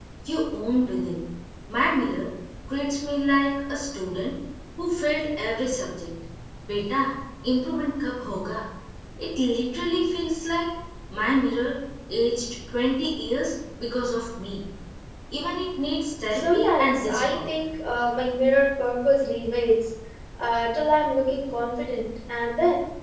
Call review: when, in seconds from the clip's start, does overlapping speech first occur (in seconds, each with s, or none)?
16.3 s